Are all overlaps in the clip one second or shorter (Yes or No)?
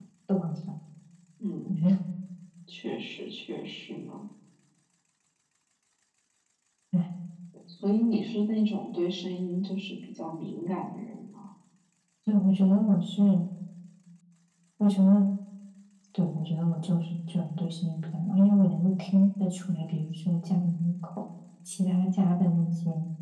Yes